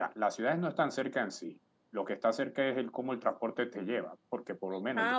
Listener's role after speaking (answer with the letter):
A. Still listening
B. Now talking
A